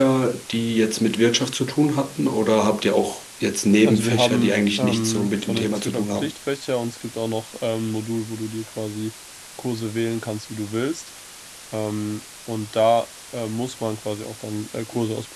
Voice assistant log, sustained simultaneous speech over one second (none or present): present